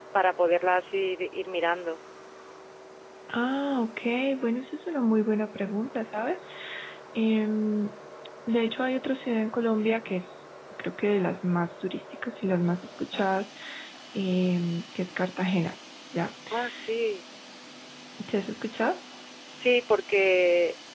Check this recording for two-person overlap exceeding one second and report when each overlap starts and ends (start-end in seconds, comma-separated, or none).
none